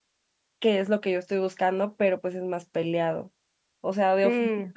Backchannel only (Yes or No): Yes